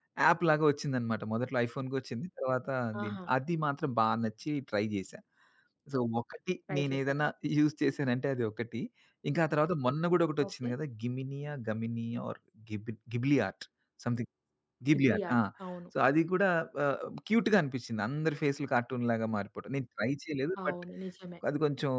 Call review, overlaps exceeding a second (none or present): none